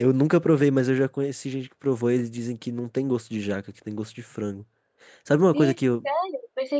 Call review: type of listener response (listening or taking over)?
taking over